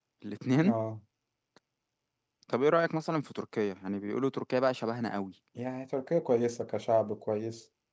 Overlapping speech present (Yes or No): No